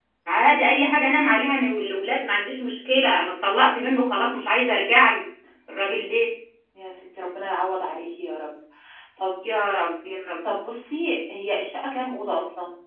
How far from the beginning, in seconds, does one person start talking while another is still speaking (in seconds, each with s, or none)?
none